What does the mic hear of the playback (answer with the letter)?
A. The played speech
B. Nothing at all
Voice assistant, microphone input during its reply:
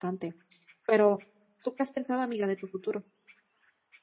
B